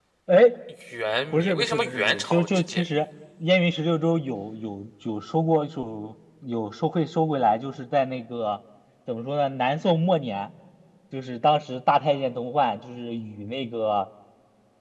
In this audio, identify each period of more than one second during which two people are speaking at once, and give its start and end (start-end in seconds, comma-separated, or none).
1.3-2.8